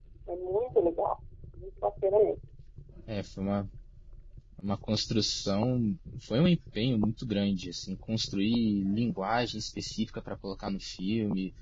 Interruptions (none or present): none